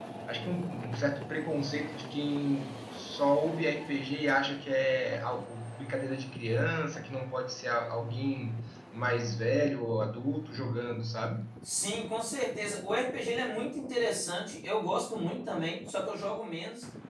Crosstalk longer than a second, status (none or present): none